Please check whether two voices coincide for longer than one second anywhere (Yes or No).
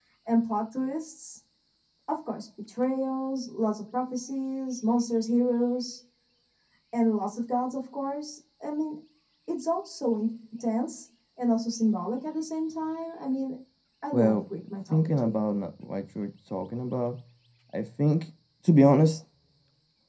Yes